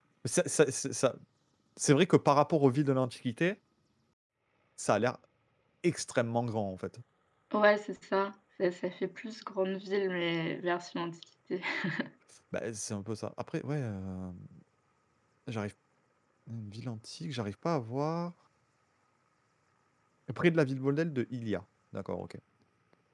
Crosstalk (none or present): none